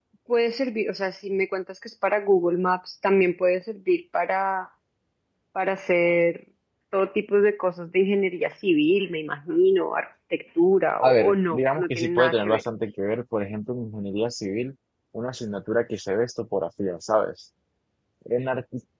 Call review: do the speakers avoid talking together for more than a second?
No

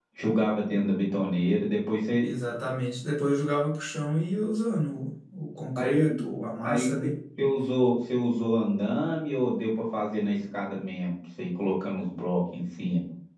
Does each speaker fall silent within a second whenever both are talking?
Yes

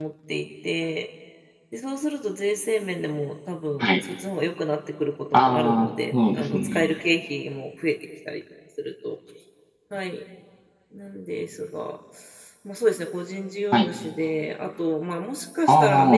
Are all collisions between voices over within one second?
No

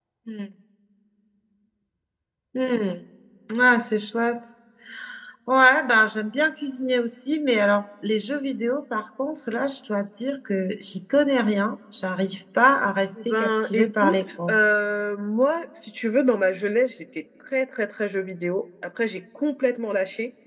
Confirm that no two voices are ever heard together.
No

